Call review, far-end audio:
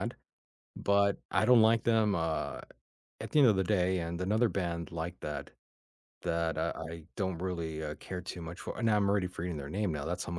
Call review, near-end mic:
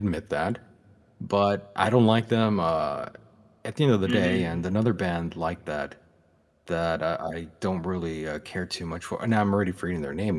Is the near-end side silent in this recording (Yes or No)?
No